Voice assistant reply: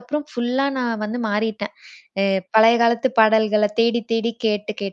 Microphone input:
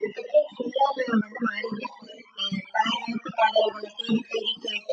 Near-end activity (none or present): none